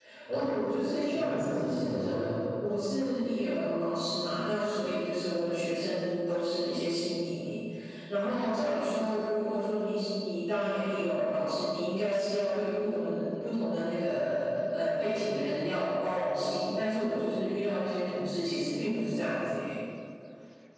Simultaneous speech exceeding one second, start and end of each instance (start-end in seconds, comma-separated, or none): 1.0-2.4